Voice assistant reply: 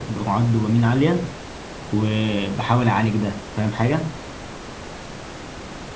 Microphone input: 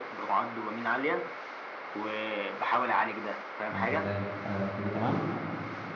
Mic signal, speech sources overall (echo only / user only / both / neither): both